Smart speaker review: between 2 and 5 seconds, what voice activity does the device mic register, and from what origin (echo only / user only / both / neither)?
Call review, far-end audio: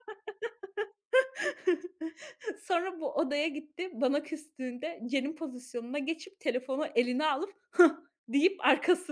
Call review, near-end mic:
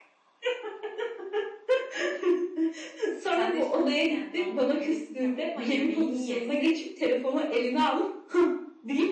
both